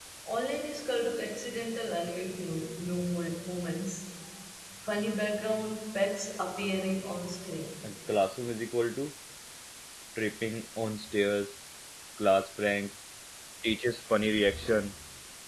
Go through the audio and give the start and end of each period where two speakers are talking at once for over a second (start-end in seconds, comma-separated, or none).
none